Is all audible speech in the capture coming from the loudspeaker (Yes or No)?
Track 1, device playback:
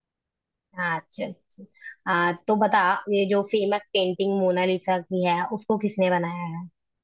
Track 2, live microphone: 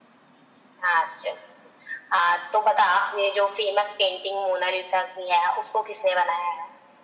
Yes